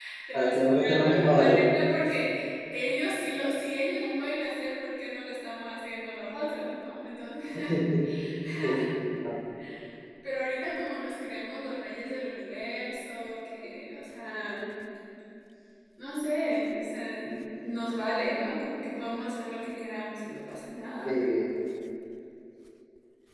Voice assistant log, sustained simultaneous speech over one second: present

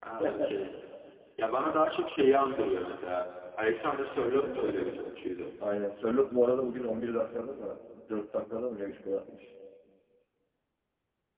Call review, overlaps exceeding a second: none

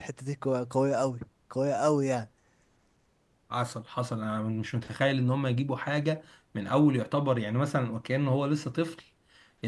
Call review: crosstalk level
none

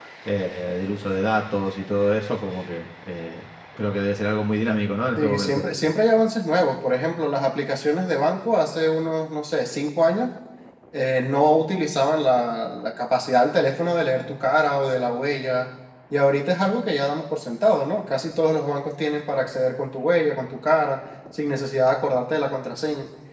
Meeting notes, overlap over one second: none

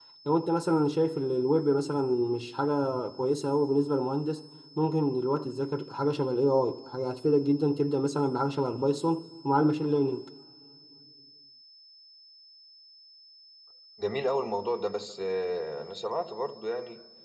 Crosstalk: none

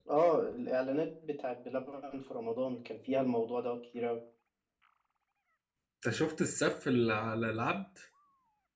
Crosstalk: none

